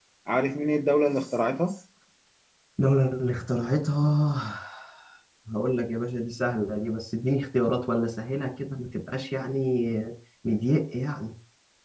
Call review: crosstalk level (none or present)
none